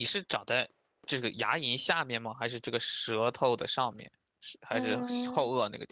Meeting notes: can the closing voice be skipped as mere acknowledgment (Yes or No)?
No